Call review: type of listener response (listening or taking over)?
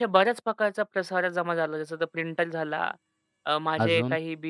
listening